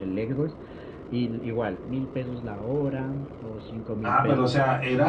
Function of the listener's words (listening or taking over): taking over